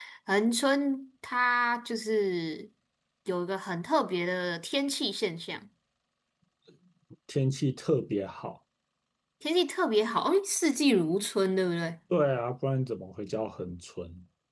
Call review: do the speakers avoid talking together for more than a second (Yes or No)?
Yes